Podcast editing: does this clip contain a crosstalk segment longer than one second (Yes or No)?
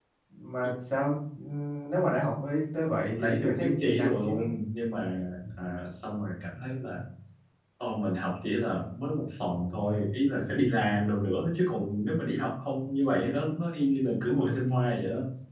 Yes